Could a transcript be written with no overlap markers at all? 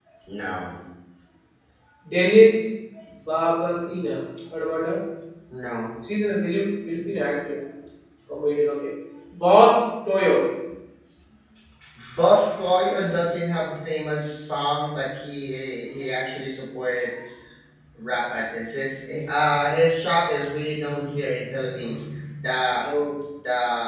Yes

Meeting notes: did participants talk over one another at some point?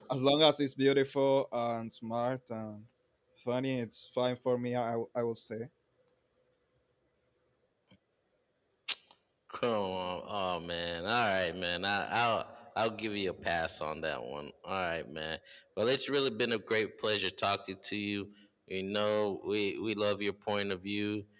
No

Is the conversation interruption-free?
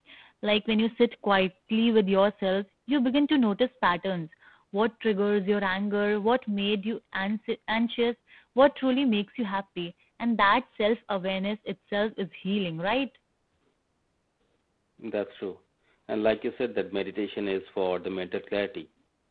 Yes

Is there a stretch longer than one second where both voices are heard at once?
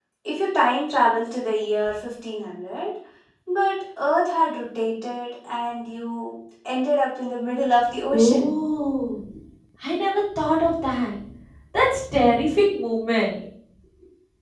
No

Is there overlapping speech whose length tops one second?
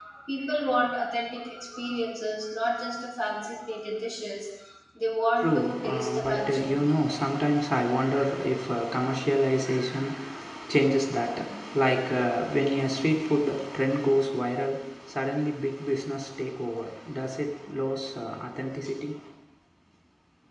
Yes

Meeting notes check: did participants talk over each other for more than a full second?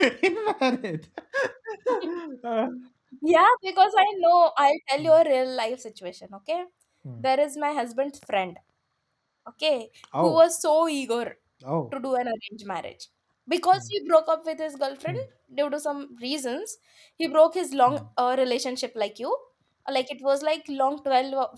No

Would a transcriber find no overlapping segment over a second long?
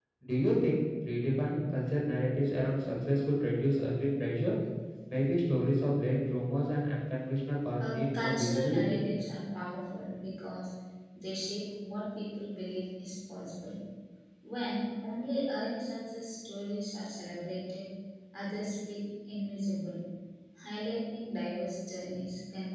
No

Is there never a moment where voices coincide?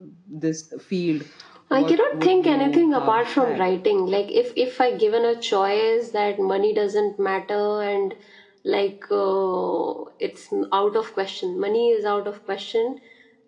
No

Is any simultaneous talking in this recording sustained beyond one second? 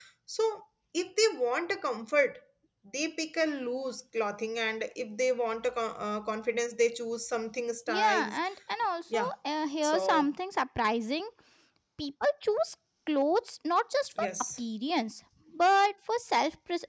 No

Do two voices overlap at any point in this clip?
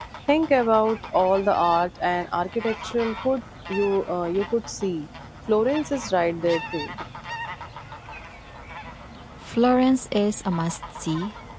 No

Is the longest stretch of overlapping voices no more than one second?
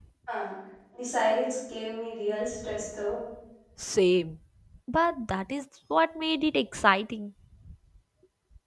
Yes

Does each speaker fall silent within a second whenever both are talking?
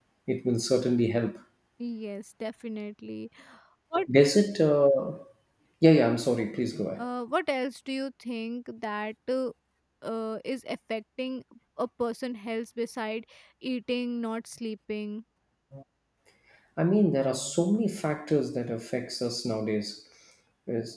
Yes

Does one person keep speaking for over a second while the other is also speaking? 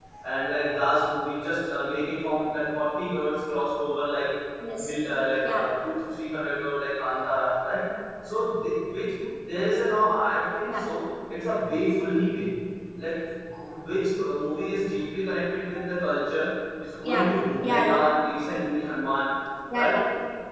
No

